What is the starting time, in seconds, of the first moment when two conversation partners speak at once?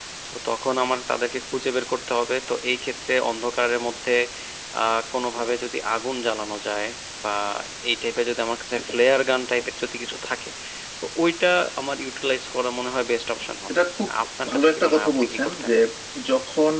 14 s

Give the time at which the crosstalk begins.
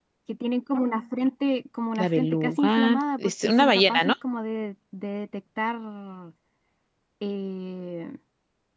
2 s

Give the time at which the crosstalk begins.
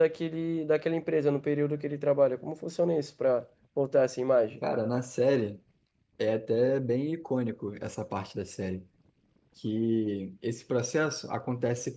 none

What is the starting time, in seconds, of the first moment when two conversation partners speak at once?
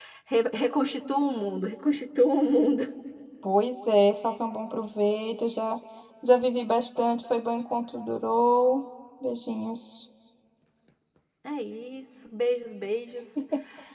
none

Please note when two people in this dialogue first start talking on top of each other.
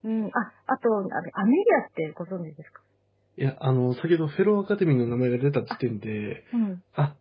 none

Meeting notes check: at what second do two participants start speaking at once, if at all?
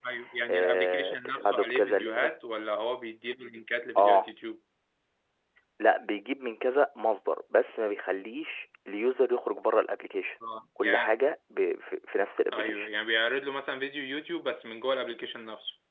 1 s

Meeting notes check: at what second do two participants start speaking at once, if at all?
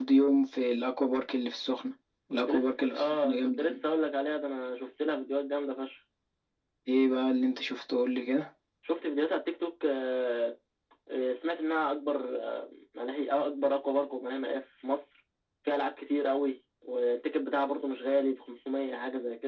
2 s

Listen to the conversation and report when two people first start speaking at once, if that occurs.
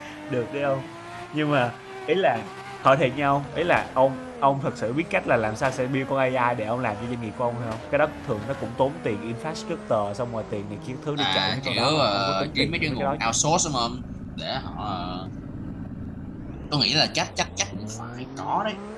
11 s

